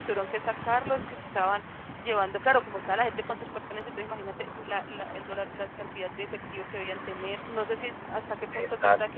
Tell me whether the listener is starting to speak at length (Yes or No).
No